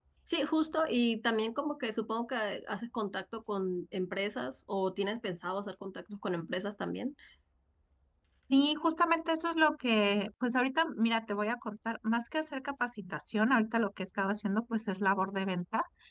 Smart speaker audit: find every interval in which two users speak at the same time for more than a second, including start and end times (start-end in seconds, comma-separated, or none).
none